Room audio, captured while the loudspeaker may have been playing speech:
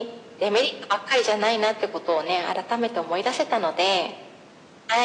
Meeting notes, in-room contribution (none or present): none